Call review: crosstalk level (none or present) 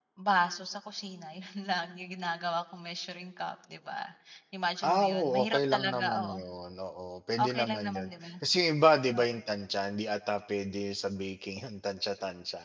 present